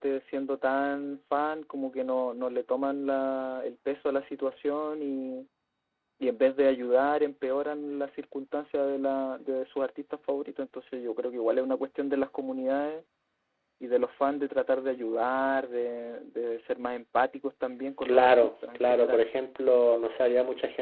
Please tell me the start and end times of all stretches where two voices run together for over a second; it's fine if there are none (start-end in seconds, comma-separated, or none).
18.0-19.2